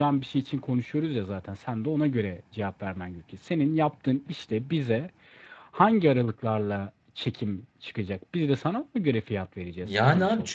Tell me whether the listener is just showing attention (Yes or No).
No